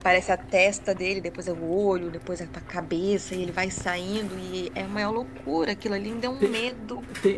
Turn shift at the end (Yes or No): Yes